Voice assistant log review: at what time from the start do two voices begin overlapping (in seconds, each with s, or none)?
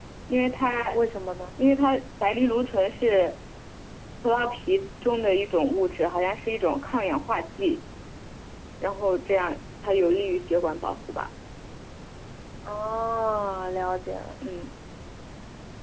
none